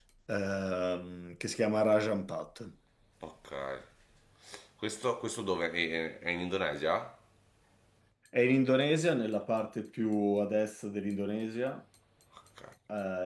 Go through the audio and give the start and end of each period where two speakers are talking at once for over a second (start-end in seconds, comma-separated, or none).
none